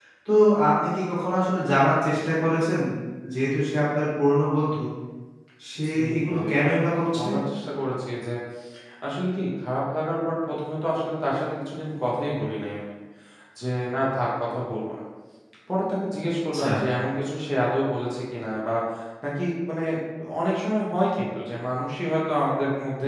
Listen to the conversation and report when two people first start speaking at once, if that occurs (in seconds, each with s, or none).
5.9 s